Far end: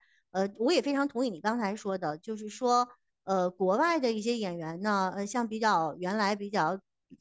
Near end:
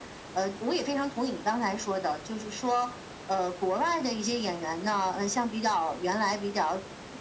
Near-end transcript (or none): none